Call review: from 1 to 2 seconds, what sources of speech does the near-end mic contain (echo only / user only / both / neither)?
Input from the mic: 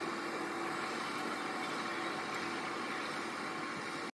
neither